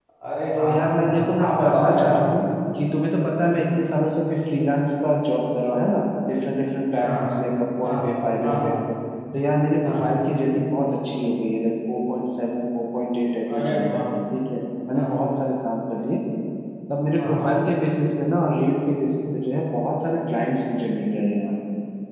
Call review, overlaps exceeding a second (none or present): present